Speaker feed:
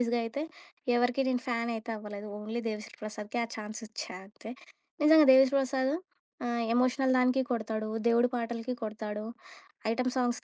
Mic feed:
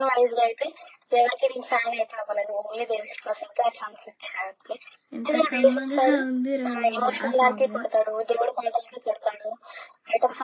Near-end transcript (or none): ఎంత కమ్మగా ఉంది రోయబ్బ' ఆ సాంగ్.